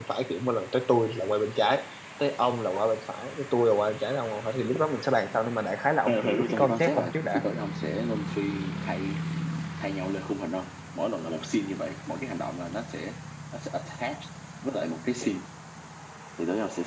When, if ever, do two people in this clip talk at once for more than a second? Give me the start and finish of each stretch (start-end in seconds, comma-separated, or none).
6.1-7.4